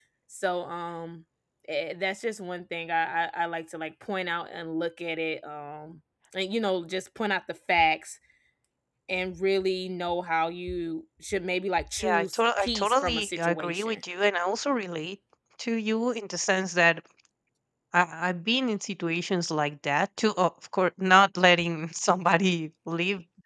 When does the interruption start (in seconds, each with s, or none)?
12.0 s